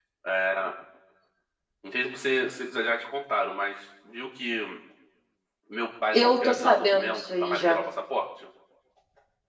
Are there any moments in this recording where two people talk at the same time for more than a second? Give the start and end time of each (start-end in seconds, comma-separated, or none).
6.1-7.8